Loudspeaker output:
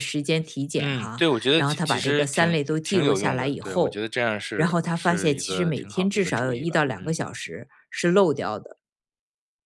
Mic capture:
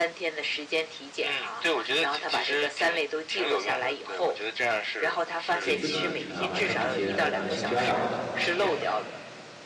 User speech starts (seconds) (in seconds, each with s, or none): 5.6 s